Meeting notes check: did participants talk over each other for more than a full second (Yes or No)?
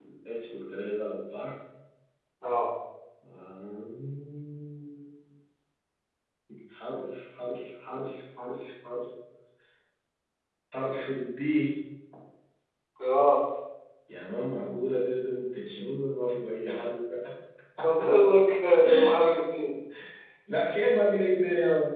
No